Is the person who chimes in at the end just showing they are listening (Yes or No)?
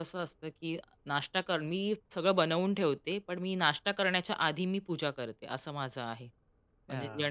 No